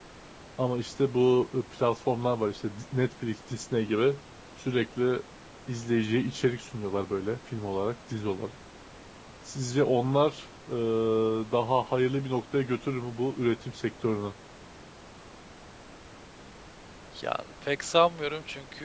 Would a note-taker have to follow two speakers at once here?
No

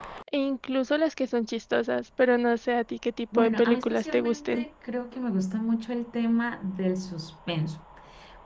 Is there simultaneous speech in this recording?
Yes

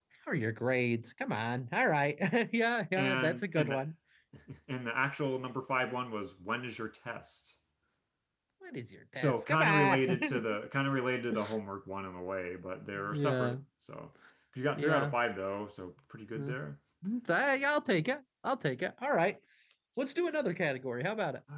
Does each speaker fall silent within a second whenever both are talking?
No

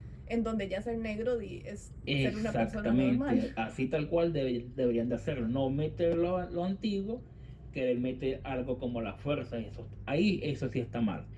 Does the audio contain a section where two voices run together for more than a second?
Yes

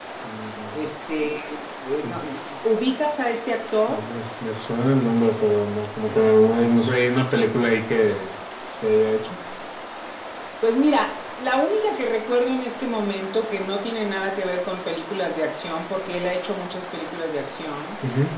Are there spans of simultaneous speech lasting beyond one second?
No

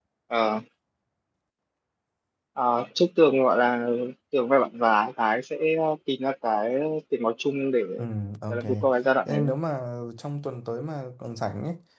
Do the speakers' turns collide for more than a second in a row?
No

